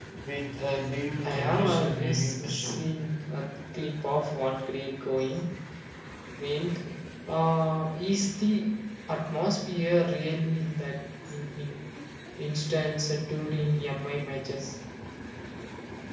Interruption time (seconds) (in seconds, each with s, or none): 1.2 s